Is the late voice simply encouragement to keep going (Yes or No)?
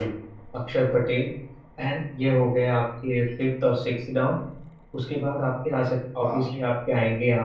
Yes